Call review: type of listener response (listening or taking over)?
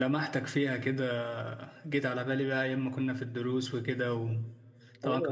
taking over